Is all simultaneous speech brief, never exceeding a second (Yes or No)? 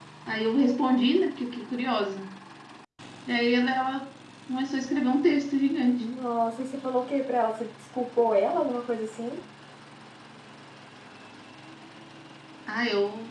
Yes